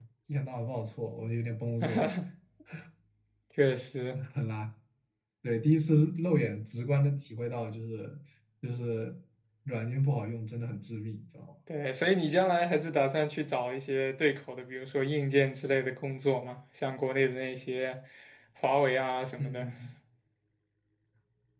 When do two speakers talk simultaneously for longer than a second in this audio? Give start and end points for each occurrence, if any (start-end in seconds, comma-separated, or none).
none